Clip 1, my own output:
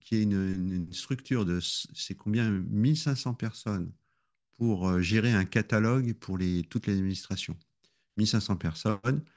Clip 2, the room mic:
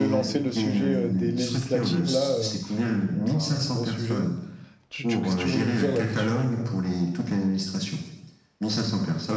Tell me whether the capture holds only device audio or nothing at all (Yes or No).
No